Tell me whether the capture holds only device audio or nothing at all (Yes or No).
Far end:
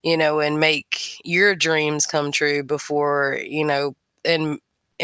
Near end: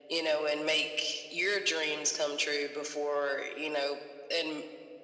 Yes